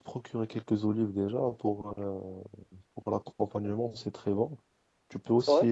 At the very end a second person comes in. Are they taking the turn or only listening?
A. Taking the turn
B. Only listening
B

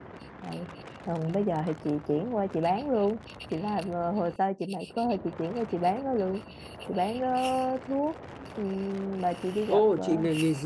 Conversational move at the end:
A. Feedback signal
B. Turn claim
B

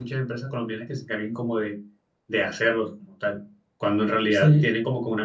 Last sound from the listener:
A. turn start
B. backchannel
B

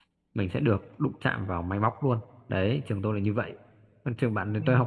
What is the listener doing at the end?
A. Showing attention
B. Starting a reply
A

